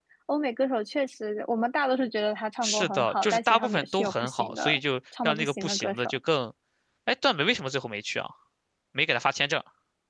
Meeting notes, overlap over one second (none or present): present